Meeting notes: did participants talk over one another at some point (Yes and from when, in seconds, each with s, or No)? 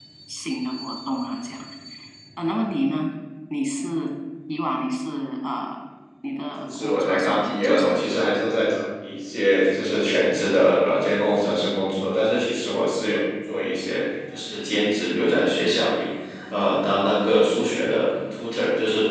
Yes, from 6.6 s